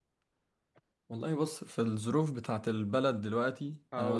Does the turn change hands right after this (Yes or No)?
No